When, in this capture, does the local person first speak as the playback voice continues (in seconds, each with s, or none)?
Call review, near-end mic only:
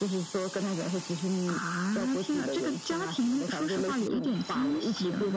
none